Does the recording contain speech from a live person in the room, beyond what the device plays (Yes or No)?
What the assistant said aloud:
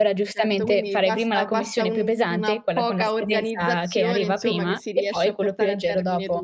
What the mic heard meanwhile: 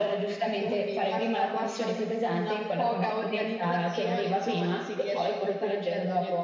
No